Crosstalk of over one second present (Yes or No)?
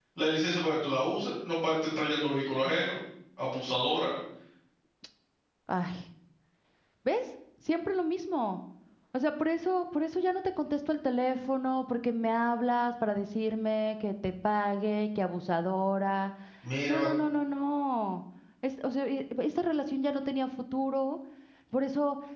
No